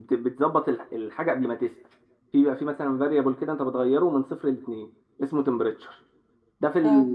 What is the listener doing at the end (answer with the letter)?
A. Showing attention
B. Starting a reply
A